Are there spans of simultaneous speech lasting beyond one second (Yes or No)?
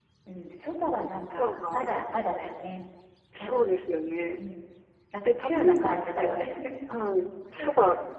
Yes